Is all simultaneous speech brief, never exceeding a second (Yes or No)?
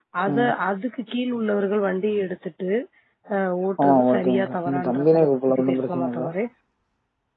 No